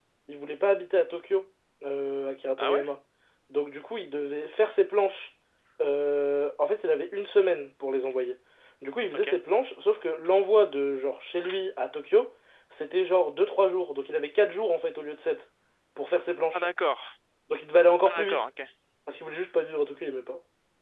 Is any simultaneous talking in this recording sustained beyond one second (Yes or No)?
No